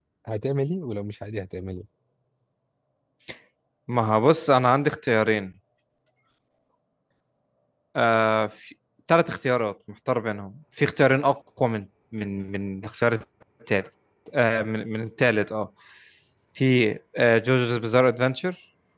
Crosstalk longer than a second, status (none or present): none